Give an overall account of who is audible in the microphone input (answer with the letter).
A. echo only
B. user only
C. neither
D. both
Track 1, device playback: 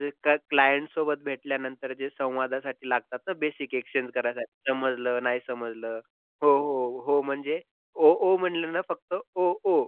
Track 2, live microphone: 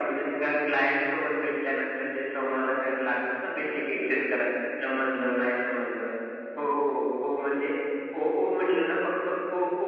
A